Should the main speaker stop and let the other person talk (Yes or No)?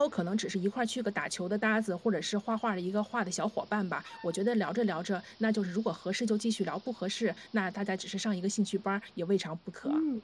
Yes